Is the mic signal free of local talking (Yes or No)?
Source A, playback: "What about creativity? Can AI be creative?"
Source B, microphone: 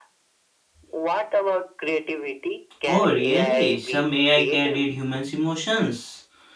No